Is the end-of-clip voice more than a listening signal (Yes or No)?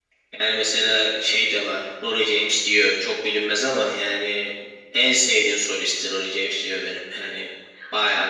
Yes